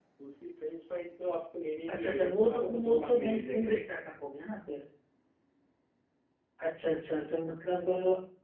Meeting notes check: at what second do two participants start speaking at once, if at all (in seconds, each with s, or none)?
1.9 s